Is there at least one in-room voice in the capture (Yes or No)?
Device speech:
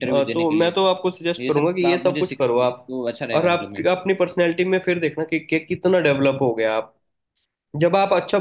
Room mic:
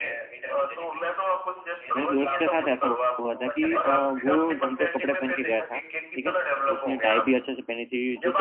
Yes